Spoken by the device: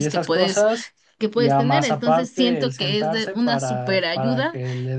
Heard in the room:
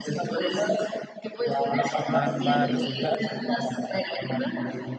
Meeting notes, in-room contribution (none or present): present